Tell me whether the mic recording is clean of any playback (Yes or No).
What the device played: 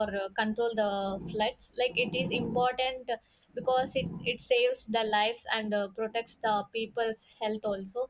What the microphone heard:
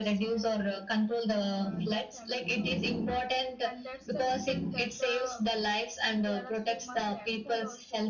No